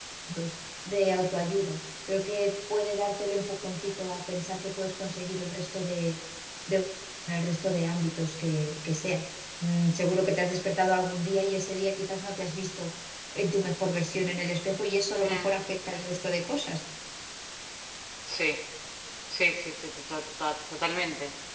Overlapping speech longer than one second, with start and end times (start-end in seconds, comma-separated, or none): none